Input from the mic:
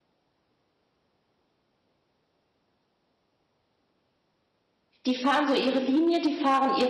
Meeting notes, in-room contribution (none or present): present